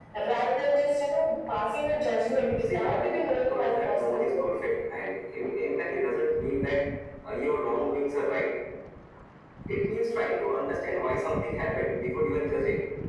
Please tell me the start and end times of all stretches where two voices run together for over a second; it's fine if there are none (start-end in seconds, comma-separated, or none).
2.6-4.5